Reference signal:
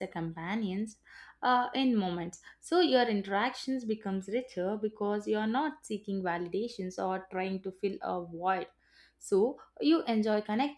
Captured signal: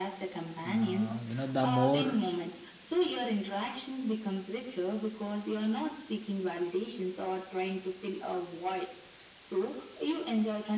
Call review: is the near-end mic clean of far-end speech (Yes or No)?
No